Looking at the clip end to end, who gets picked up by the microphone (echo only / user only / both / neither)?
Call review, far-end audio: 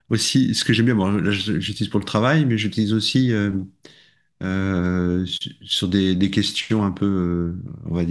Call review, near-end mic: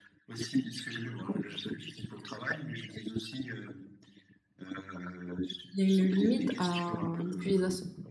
both